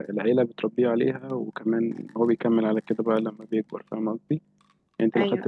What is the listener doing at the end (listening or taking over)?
listening